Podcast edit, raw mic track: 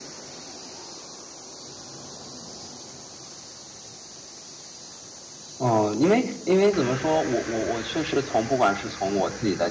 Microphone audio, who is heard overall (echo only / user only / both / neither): user only